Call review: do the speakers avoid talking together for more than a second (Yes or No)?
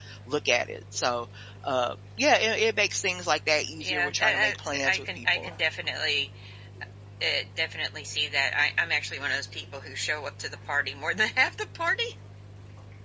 No